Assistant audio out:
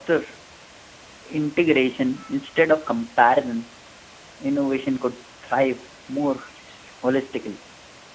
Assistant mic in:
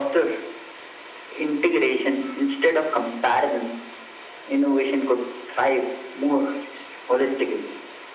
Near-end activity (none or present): none